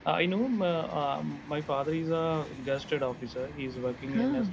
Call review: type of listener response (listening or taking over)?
listening